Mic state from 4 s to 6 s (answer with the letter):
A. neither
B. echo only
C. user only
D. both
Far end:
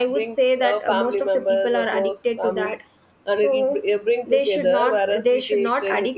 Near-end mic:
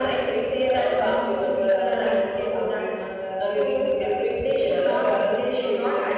D